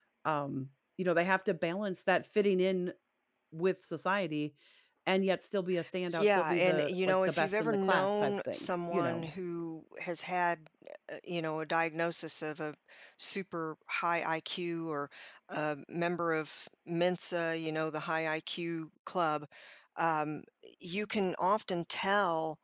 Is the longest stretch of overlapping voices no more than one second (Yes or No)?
No